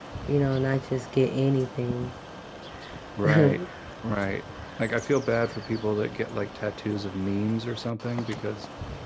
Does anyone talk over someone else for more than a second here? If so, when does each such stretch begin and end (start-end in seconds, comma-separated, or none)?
none